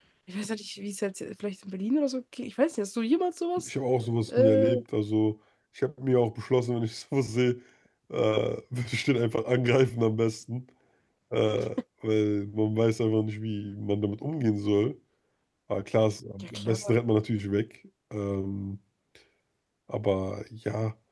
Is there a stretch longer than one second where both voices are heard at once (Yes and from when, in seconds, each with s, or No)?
No